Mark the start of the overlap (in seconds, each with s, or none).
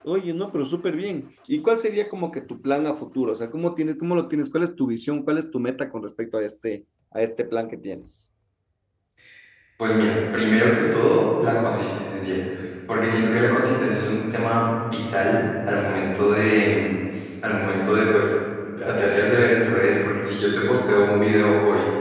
none